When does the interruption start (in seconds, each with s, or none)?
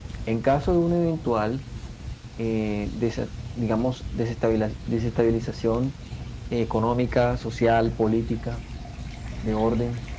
none